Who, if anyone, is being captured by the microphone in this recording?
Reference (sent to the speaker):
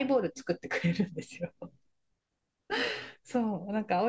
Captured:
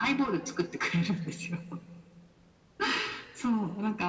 echo only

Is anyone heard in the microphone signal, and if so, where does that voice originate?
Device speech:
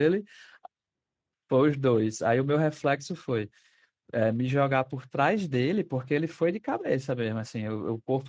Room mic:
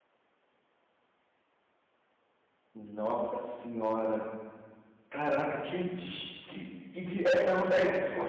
user only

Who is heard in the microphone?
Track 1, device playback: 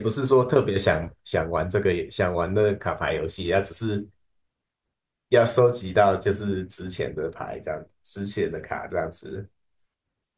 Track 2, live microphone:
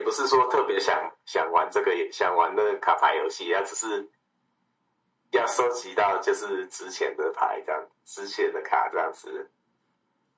echo only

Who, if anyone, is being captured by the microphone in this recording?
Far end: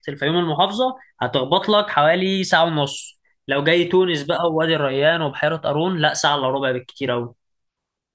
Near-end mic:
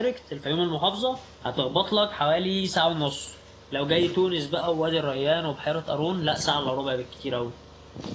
echo only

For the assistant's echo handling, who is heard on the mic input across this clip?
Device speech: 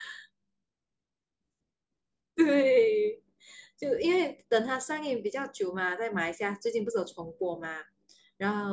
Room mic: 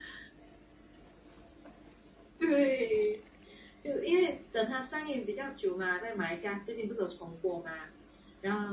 echo only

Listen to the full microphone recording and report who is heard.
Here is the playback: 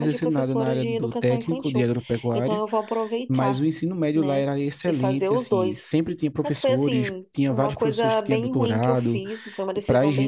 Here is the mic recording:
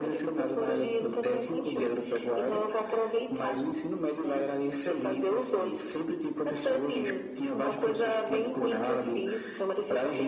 echo only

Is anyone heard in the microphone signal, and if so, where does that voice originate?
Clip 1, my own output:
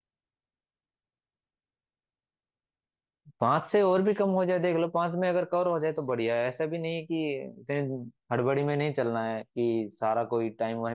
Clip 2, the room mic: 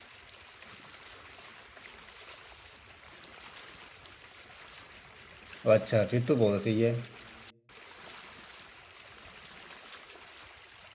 user only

